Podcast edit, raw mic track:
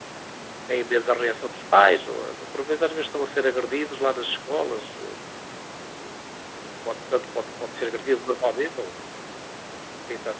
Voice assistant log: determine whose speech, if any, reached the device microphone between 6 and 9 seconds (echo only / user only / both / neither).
echo only